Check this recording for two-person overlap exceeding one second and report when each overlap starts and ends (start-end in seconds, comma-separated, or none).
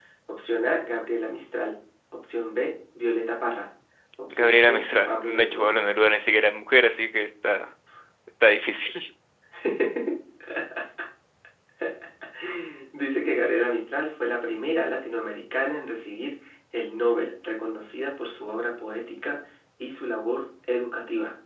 4.3-5.7